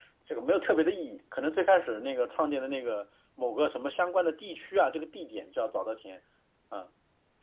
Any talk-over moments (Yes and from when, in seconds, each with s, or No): No